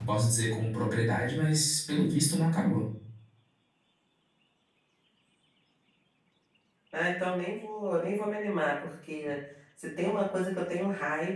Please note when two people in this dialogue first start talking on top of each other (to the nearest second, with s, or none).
none